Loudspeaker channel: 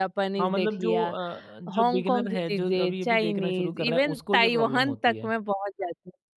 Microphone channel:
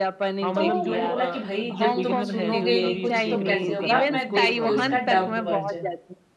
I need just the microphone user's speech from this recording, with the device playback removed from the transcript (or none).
तो मैंने बोला कि भाई जब तुम सुनोगे ही नहीं कुछ तो कैसे होगा? मैं देखती हूँ इसका डब्ड वर्जन।